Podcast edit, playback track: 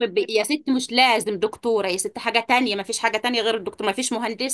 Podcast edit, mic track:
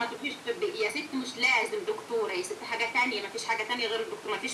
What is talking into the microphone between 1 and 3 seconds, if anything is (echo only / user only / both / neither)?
echo only